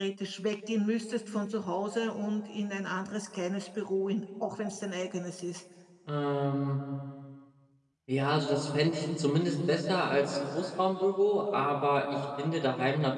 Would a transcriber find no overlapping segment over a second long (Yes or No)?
Yes